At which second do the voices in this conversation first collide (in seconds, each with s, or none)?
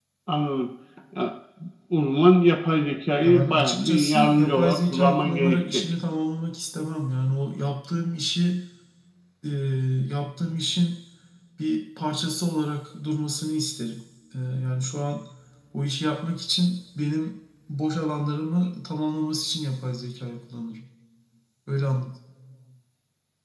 3.2 s